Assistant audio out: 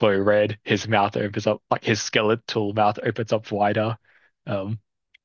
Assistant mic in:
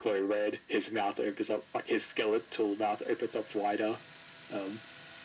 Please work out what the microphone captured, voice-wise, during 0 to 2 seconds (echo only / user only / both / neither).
echo only